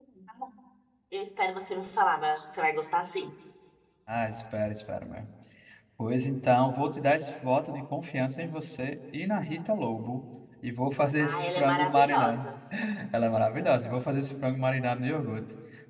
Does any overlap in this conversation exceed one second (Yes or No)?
Yes